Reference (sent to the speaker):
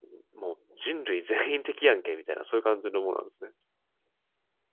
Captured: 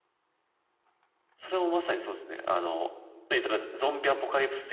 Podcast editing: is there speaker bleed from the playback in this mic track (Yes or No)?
No